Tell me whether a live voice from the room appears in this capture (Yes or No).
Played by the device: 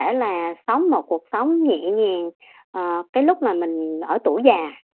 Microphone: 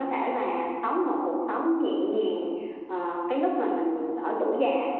No